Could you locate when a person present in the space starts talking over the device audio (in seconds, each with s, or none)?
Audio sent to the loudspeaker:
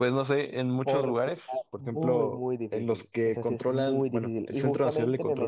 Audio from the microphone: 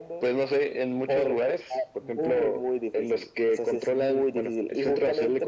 none